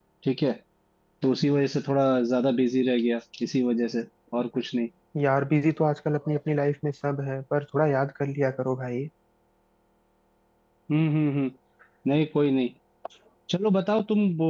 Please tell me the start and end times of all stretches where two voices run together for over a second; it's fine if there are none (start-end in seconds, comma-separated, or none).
none